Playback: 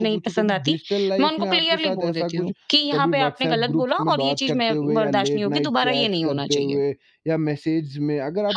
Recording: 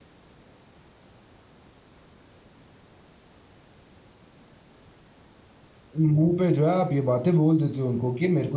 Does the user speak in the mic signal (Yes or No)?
Yes